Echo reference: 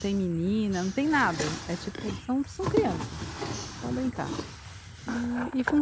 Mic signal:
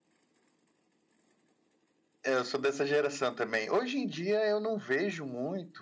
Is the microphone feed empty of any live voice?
No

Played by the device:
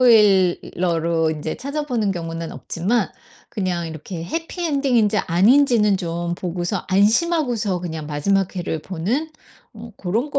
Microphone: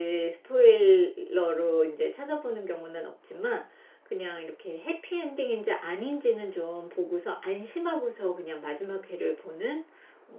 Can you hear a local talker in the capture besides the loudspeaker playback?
No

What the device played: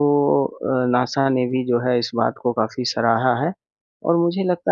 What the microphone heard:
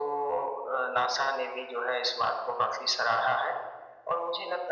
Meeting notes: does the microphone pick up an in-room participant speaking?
No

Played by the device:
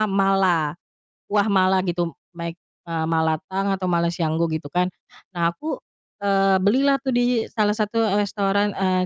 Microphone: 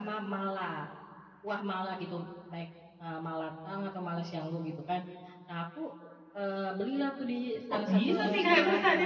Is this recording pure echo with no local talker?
No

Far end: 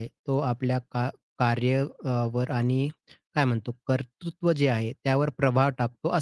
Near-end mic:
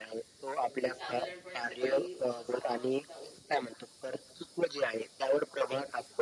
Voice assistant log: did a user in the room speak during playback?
Yes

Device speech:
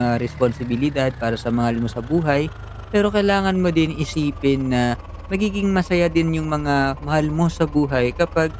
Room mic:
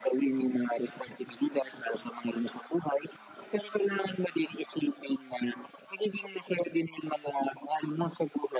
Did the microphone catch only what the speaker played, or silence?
Yes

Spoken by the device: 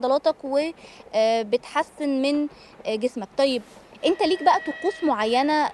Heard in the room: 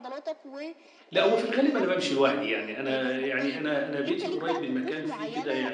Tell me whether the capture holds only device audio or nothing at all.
No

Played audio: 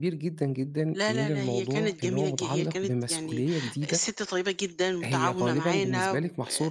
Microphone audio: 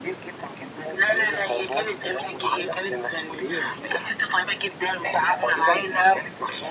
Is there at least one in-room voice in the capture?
No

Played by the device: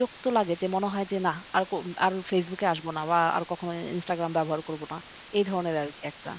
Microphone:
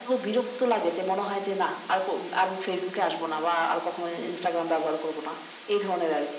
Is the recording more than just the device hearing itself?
No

